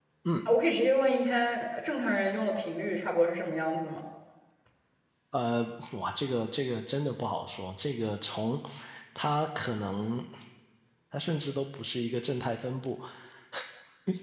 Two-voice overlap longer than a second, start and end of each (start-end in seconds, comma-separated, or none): none